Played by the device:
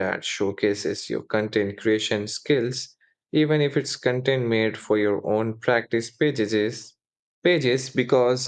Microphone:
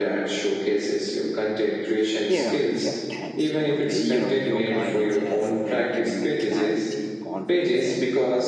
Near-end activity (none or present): present